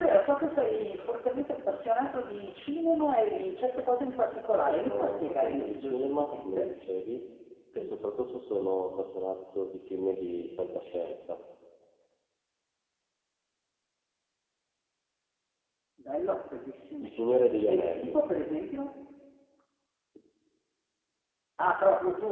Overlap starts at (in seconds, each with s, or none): 4.6 s